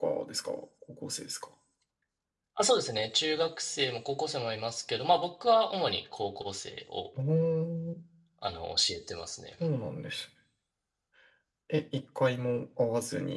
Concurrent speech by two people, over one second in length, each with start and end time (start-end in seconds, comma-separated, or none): none